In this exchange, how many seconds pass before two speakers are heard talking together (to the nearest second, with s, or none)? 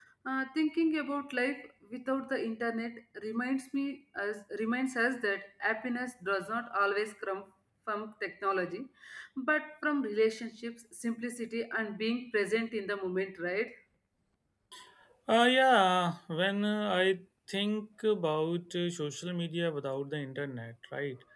none